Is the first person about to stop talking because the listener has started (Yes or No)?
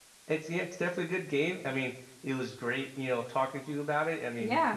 No